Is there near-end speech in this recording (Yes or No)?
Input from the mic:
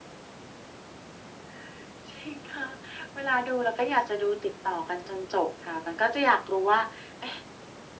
No